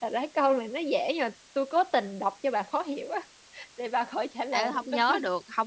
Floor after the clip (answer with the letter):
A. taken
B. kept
A